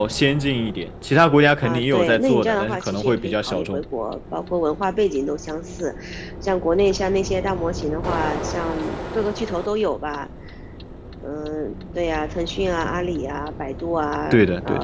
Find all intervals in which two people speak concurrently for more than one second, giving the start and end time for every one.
1.6-3.8

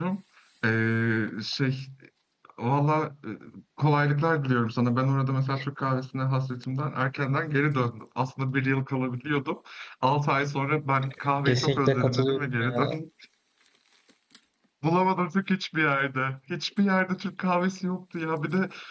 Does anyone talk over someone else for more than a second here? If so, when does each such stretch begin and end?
11.4-13.0

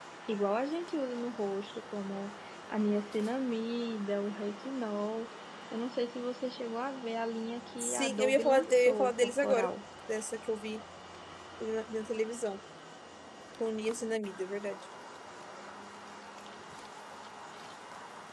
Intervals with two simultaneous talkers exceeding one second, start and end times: 7.8-9.7

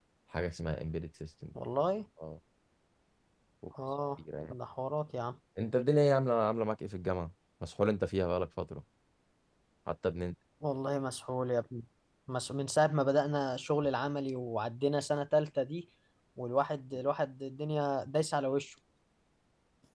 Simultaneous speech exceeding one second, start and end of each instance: none

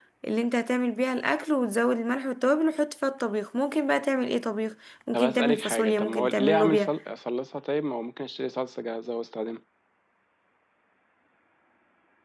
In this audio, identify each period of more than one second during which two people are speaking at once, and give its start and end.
5.1-6.9

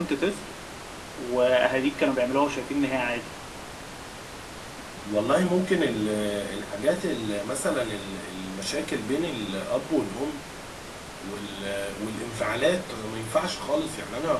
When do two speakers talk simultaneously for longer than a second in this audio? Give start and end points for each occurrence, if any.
none

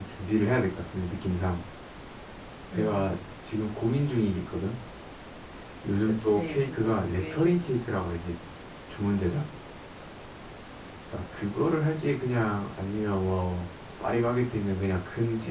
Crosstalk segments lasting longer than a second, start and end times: 6.1-7.8

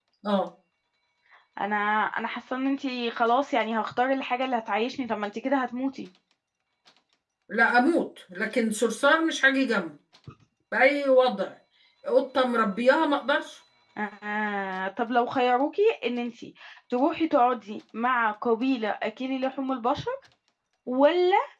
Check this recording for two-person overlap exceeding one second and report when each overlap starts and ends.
none

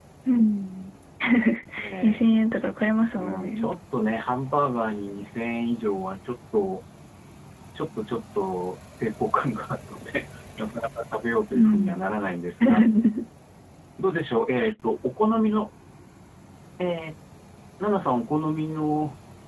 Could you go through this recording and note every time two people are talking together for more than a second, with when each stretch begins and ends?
none

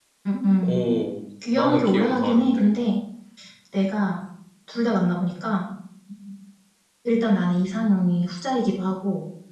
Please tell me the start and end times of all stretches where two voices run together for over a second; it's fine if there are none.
1.5-2.7

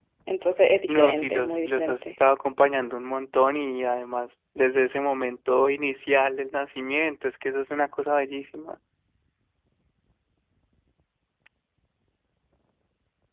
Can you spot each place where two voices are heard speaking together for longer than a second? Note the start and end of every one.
0.9-2.1

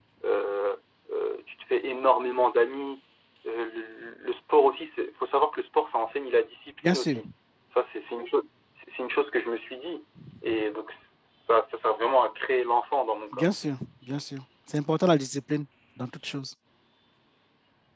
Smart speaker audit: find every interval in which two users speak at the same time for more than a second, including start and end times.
none

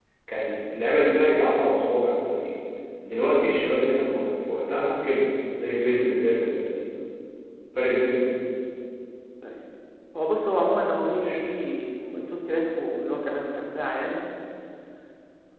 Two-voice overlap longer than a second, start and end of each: none

